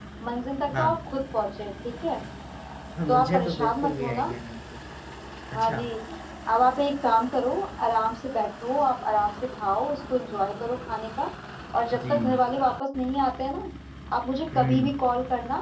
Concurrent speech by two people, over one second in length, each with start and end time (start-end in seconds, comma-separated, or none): 3.1-4.3